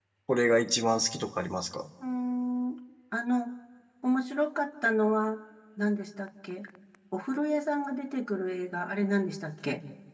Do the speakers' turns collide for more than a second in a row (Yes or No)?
No